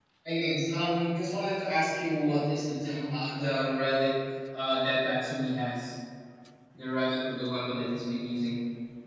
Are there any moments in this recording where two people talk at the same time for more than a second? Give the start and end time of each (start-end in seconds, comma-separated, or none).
none